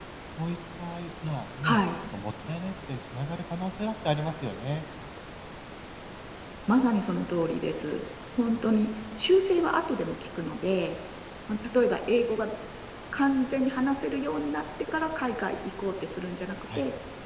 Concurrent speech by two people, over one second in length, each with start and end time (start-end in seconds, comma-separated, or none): none